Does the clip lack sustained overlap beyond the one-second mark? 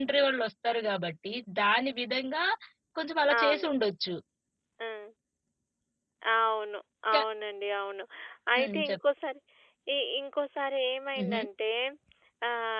Yes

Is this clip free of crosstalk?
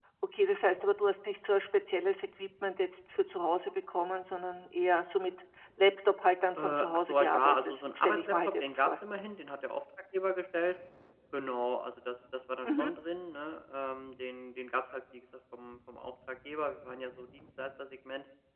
No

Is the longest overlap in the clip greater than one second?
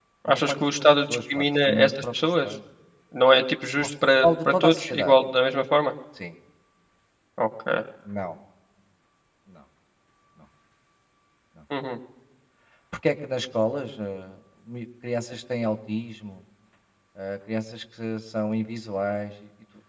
Yes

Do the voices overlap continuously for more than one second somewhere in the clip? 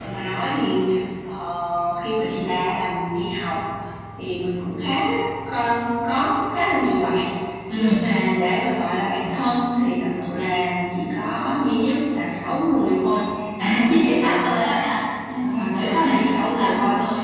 Yes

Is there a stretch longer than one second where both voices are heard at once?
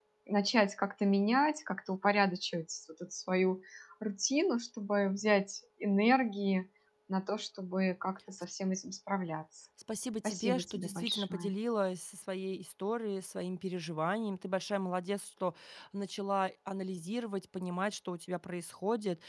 Yes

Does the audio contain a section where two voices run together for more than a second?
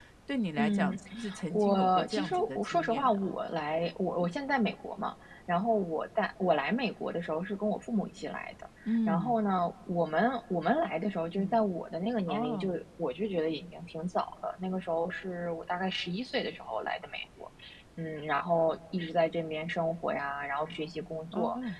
Yes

